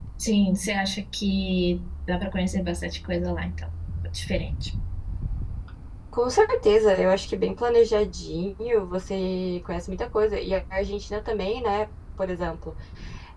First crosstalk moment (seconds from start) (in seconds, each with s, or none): none